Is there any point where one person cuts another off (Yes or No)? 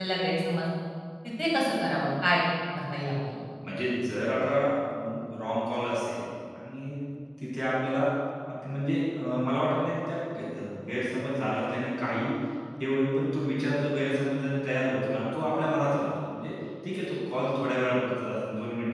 No